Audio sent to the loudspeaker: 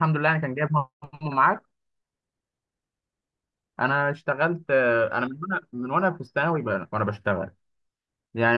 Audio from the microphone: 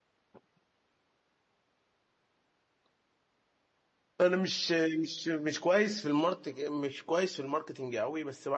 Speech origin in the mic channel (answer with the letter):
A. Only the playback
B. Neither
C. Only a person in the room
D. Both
C